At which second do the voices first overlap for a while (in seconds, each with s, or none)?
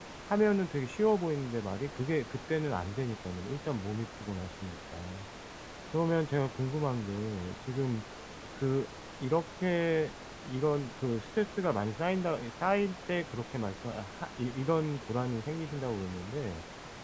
none